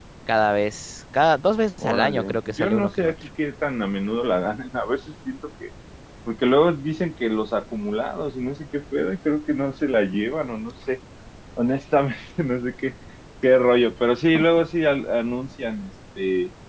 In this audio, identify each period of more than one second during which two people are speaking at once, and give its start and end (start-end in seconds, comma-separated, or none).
1.8-3.1